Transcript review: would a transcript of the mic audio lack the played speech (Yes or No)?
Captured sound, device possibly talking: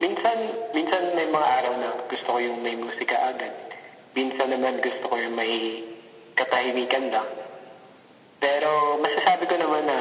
No